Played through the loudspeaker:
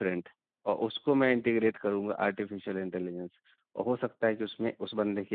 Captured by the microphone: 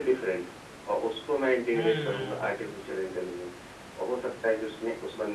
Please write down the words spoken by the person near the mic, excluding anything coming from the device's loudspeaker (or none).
हम्म